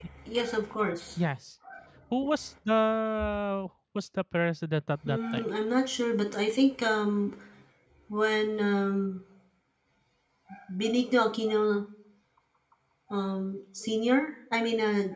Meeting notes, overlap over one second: none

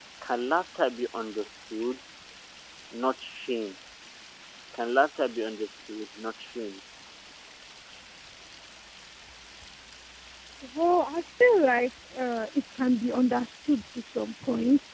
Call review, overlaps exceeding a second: none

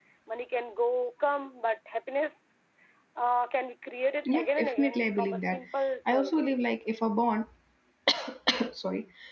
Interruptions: present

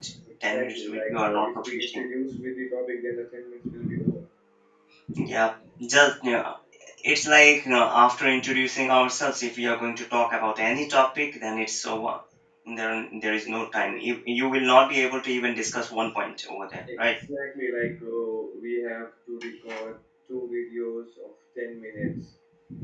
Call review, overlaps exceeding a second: present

